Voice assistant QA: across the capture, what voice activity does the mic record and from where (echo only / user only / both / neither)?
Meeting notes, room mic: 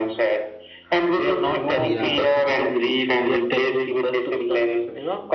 both